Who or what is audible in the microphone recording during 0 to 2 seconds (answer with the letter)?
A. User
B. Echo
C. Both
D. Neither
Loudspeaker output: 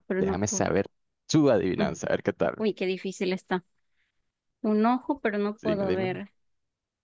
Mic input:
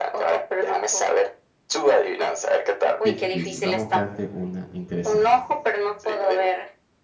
B